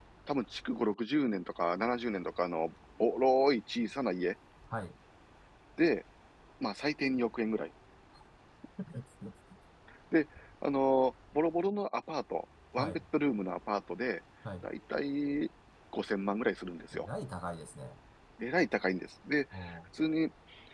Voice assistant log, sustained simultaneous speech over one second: none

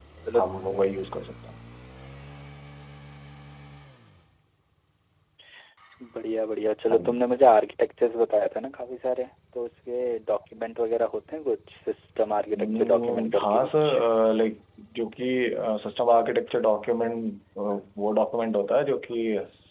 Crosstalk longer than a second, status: present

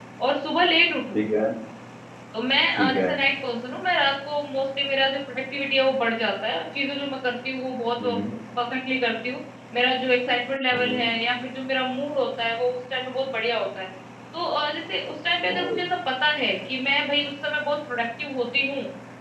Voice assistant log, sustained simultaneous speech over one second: none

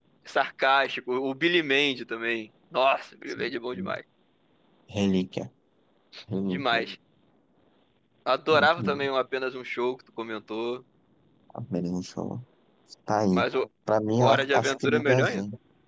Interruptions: present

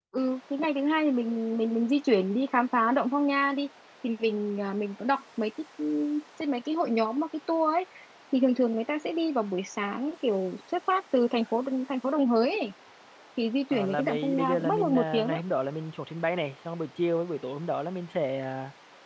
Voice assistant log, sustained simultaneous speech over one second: present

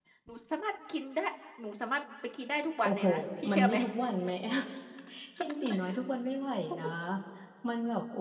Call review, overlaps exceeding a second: none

